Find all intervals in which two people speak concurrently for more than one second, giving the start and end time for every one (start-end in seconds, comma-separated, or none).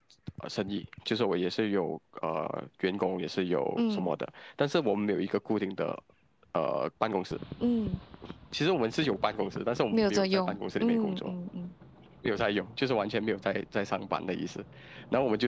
9.9-11.3